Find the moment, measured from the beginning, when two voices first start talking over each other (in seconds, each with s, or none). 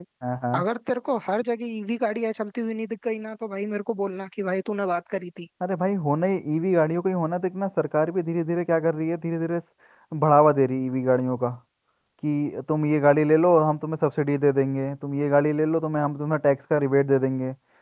none